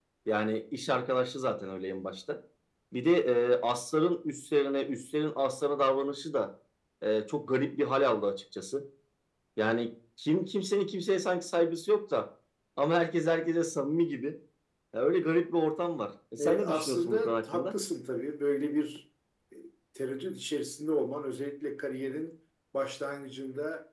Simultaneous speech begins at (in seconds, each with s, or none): 16.4 s